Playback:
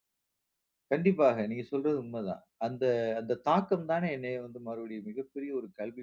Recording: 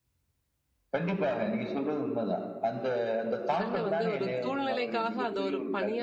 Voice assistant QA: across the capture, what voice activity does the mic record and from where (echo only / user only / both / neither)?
both